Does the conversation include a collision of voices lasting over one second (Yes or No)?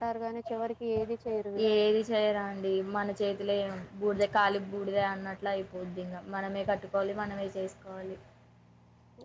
No